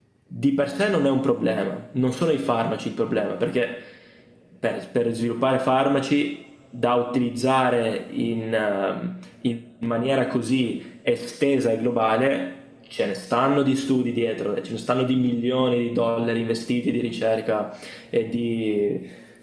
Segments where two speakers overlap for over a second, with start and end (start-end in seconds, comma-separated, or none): none